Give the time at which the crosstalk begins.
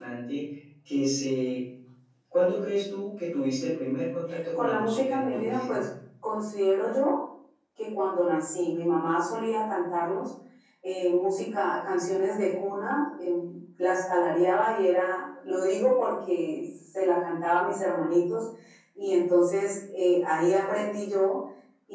4.6 s

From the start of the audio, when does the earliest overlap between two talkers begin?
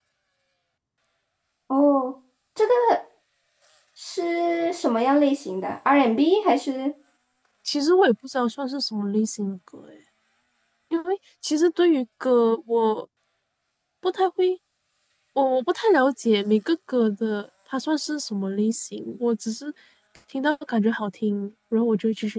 none

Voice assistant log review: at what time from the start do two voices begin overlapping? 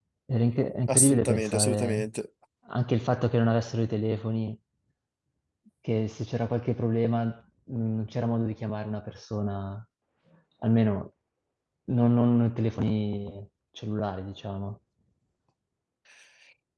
0.9 s

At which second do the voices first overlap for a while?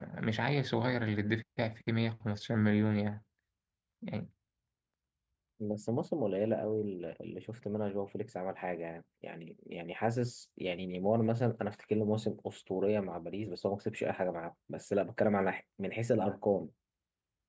none

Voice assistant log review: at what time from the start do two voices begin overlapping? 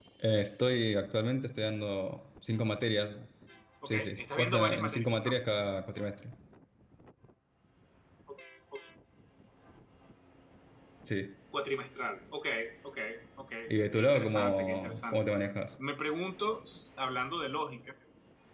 3.9 s

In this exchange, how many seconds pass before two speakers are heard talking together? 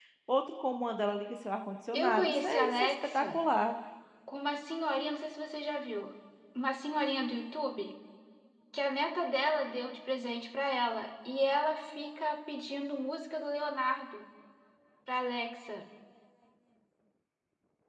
1.9 s

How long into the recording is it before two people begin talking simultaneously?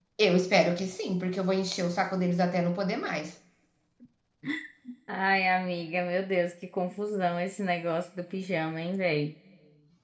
none

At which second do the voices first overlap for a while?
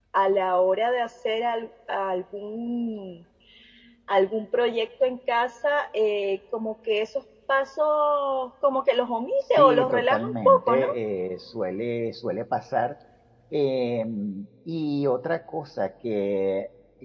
9.6 s

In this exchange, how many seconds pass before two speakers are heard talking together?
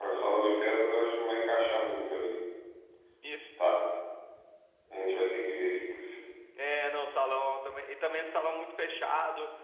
none

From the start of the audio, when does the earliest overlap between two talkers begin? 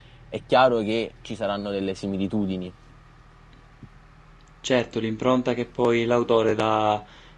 none

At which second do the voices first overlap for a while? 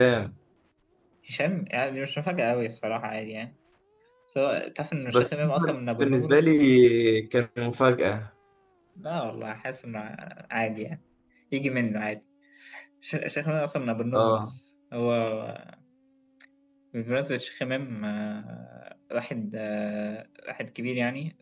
5.1 s

